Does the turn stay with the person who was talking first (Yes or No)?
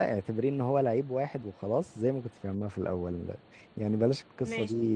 Yes